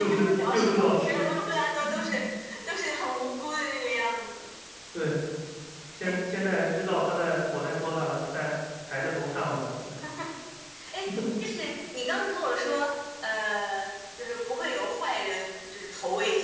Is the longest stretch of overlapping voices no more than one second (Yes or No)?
No